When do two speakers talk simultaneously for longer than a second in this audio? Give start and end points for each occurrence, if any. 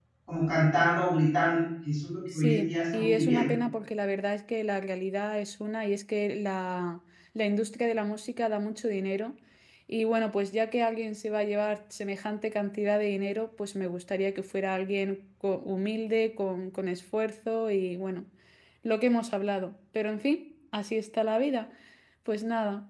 2.3-3.5

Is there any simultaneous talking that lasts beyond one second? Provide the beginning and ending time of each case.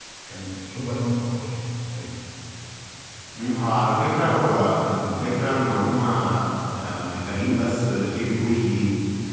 none

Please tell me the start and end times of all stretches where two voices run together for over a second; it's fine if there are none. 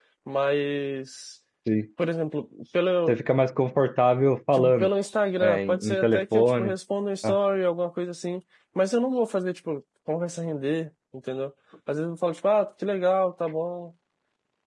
5.4-6.7

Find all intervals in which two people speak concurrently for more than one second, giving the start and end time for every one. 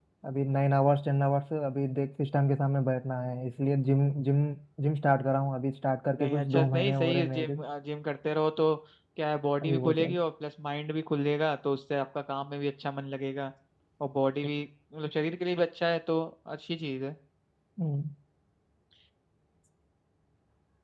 6.2-7.6

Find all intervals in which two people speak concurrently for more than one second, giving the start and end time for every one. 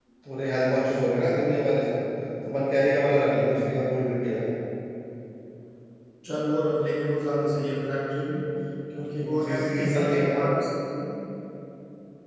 9.2-10.4

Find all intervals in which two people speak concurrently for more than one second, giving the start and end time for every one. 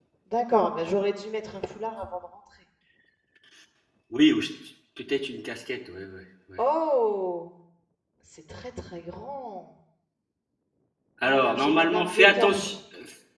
11.2-12.7

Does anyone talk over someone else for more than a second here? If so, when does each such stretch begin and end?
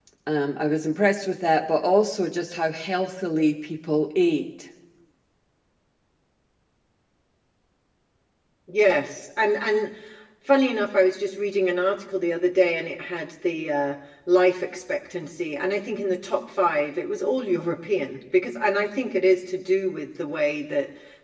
none

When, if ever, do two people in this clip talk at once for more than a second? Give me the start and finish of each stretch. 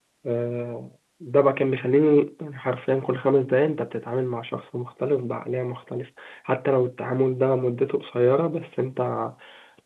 none

